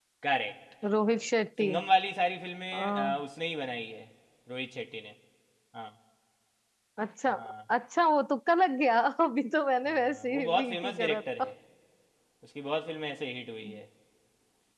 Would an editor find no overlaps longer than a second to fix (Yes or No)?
No